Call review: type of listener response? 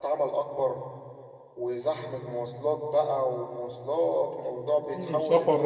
taking over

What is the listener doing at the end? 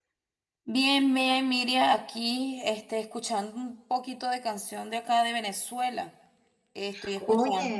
listening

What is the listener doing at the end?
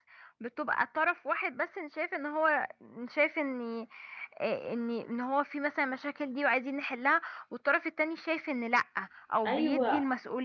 taking over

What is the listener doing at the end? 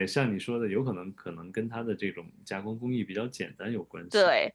taking over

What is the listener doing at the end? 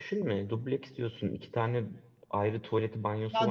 taking over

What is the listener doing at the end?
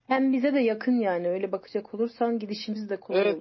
taking over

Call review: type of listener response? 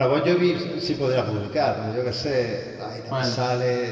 listening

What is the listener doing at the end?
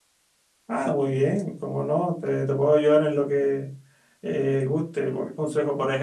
listening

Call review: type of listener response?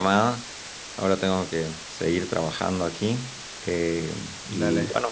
listening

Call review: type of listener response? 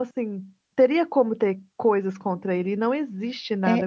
taking over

